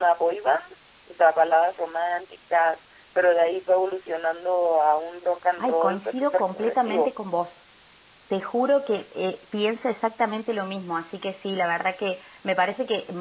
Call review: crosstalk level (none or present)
present